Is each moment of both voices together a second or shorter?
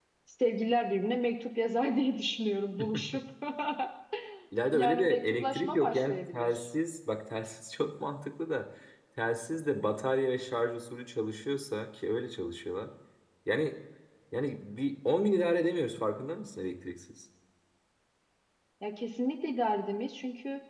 No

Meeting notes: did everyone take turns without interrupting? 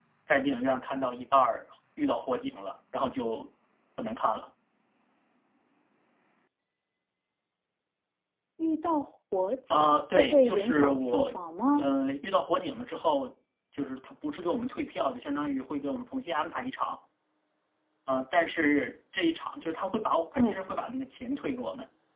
No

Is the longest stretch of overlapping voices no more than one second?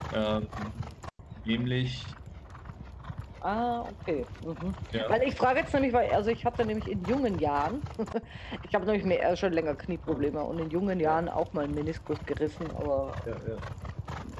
Yes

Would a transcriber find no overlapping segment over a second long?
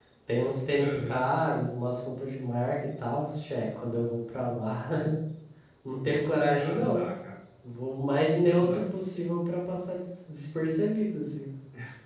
Yes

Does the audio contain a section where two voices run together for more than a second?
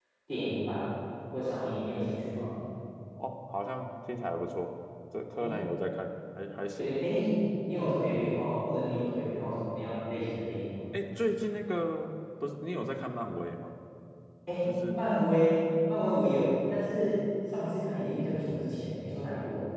No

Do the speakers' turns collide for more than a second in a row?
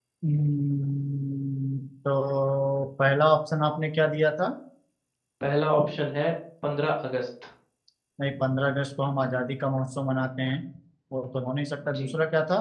No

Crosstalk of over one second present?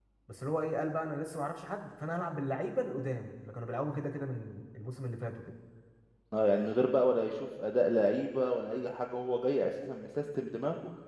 No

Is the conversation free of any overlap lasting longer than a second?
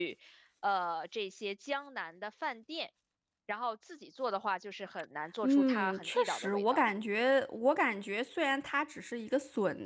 No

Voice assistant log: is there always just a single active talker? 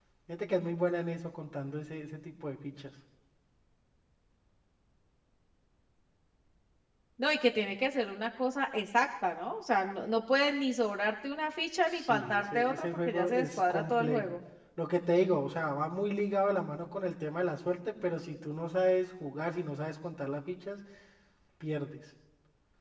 No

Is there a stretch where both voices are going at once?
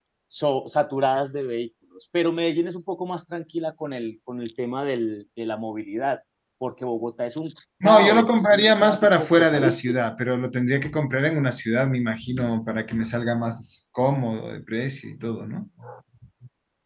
Yes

